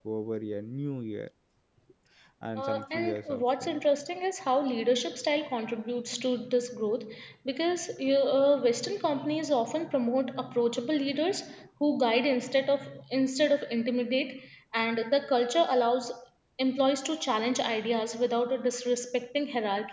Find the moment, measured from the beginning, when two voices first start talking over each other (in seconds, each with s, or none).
2.6 s